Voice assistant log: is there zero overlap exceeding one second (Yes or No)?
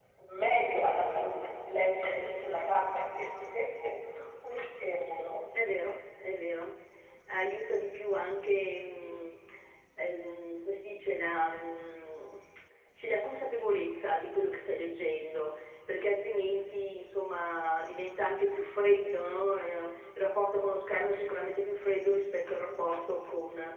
Yes